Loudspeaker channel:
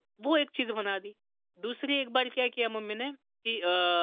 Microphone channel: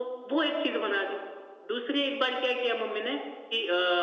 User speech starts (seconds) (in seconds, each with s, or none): none